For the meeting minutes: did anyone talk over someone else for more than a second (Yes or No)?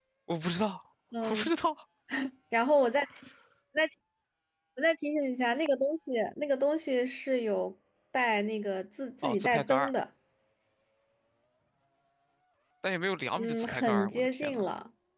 Yes